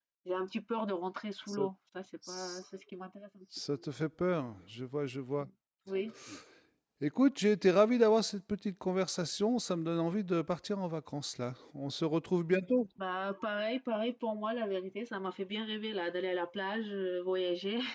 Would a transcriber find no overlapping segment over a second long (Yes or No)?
Yes